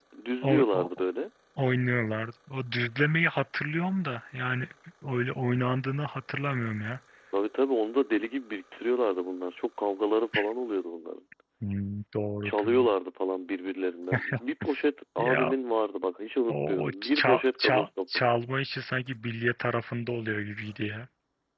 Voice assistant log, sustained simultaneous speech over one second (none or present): present